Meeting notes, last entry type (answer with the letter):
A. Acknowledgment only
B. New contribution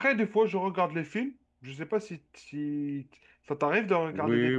B